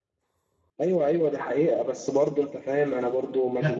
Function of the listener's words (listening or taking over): taking over